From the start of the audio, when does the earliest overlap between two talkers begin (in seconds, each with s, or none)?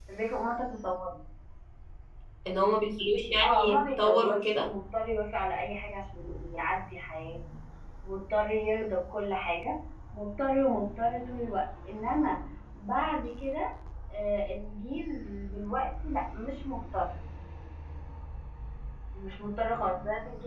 3.4 s